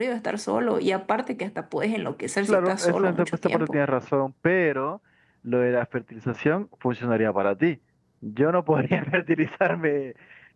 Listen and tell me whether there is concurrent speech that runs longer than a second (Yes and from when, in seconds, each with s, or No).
Yes, from 2.5 s